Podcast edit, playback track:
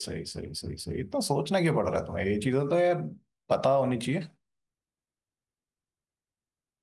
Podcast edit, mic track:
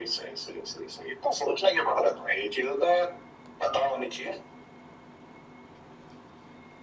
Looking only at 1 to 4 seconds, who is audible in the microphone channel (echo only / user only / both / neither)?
echo only